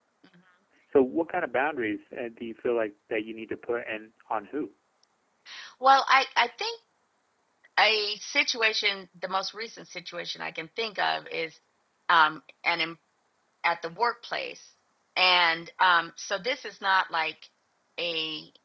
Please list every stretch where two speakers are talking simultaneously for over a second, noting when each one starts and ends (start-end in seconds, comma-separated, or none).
none